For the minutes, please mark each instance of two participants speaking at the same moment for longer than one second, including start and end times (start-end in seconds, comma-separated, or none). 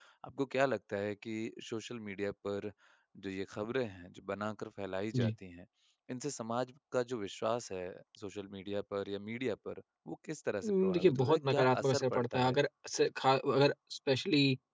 10.6-12.6